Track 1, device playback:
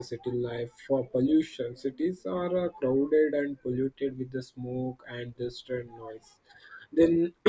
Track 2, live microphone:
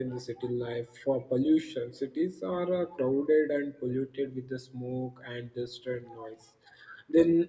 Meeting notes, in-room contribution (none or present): none